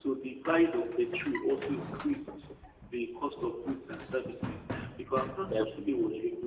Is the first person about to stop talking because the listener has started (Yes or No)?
No